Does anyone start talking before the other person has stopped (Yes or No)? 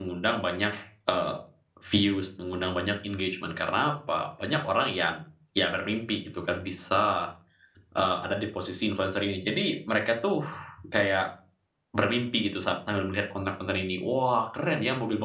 No